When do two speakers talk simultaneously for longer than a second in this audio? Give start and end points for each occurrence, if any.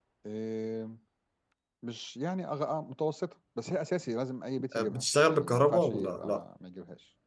4.9-6.4

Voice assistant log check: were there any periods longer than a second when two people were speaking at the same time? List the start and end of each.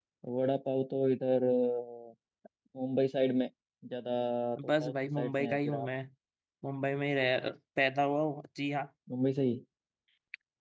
4.7-5.9

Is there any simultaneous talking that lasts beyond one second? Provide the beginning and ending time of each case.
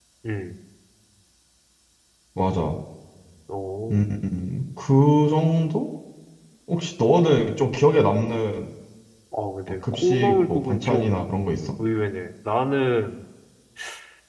9.9-11.2

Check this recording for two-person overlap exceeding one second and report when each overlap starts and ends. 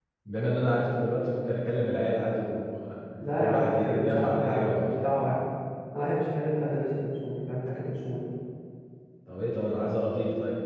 3.2-4.9

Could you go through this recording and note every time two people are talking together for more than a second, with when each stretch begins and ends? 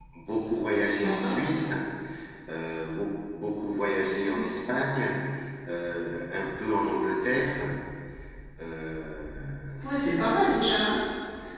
none

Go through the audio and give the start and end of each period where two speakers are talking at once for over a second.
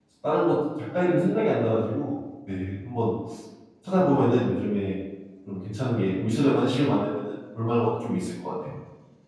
none

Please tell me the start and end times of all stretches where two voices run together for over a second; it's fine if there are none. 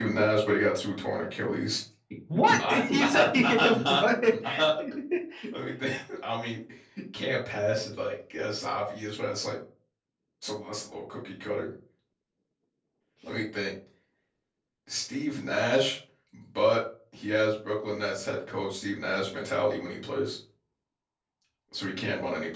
2.5-4.0

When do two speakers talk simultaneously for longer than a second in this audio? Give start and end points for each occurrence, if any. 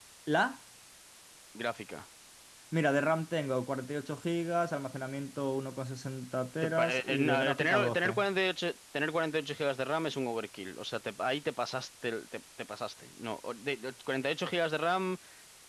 6.6-8.1

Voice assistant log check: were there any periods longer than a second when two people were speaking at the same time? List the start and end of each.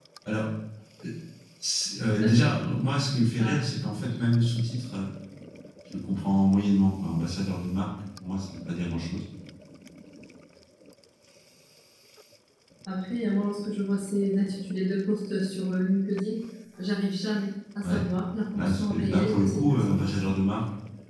18.5-20.1

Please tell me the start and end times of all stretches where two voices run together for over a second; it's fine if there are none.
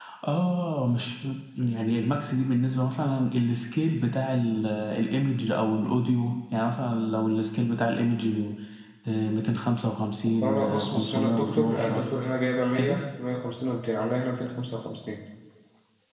10.3-12.1

